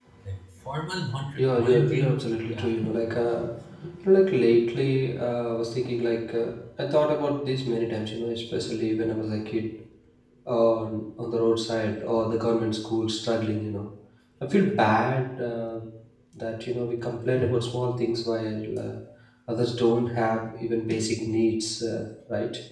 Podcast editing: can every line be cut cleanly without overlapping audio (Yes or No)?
No